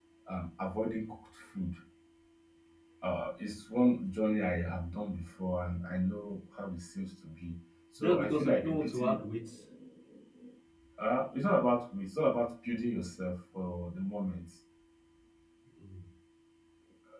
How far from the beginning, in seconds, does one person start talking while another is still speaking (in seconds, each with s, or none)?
8.0 s